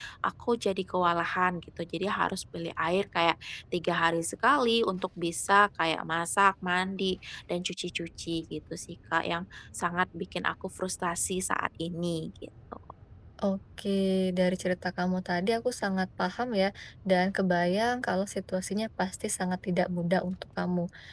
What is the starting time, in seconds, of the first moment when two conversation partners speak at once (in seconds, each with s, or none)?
none